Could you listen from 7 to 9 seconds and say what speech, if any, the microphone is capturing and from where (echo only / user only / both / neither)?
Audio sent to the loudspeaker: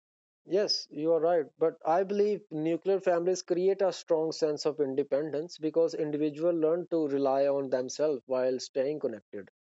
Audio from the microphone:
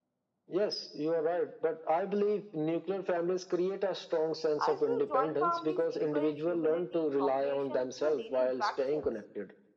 both